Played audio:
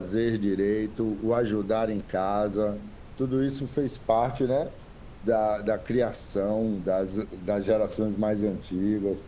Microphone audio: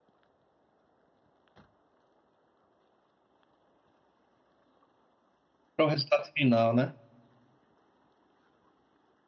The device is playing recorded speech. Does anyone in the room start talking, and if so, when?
5.7 s

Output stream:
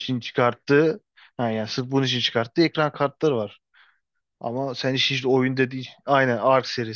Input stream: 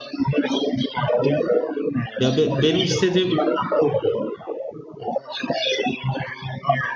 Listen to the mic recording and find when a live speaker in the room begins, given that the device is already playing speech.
2.2 s

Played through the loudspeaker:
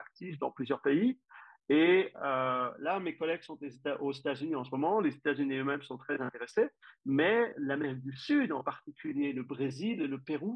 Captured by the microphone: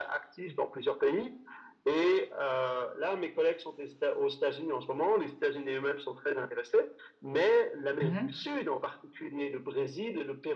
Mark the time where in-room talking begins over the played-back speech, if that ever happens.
8.0 s

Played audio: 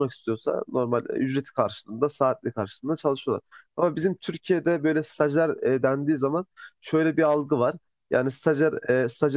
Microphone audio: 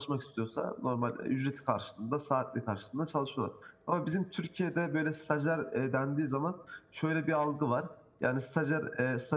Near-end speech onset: none

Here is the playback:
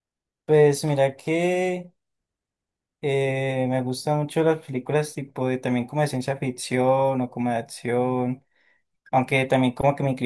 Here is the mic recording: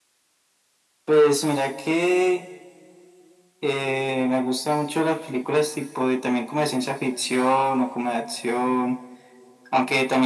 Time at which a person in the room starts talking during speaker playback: none

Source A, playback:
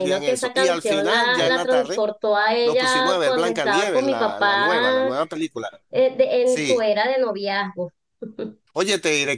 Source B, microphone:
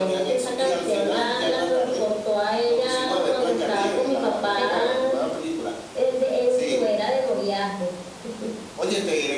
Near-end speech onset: 4.5 s

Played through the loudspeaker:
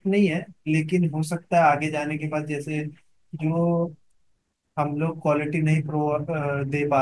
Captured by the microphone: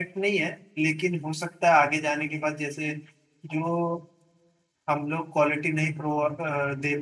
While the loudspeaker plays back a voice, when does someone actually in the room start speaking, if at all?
none

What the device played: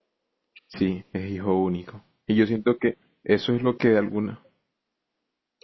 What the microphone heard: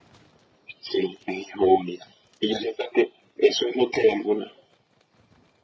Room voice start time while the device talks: none

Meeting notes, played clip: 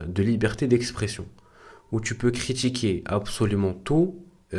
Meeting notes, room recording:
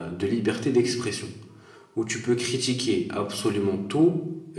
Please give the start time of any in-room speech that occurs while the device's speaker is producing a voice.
none

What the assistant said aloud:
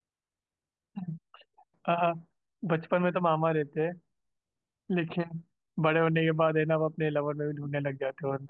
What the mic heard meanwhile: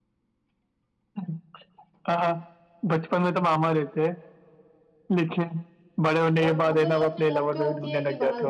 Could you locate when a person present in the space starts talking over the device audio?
6.4 s

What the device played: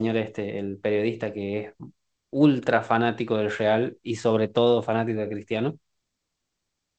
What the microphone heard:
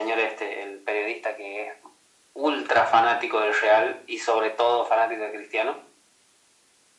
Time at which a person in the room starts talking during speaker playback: none

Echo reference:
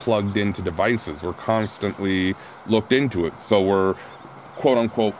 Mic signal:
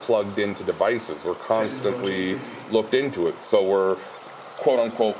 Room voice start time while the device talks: 1.5 s

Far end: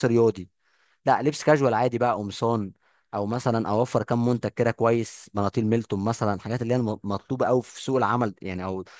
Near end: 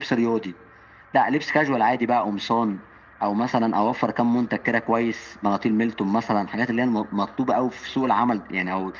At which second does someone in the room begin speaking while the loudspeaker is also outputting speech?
none

